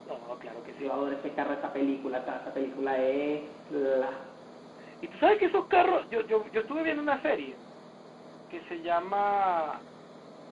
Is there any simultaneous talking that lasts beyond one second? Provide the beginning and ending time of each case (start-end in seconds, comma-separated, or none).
none